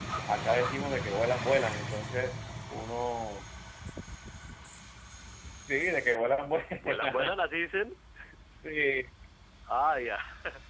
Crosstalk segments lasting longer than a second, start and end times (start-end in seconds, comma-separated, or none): none